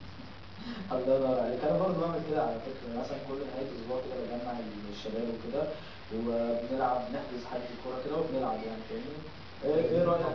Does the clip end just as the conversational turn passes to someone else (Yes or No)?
No